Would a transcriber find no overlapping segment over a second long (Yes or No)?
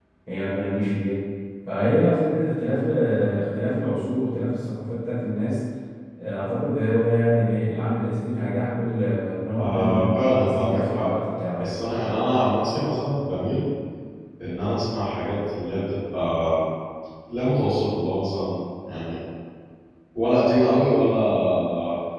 No